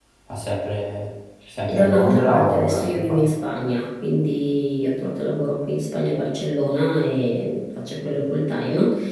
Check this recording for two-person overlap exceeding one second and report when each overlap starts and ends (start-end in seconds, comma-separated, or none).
1.7-3.4